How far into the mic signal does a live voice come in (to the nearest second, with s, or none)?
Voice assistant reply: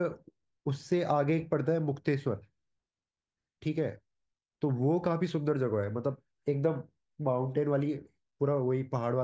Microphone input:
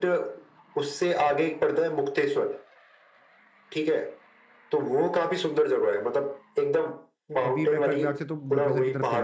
7 s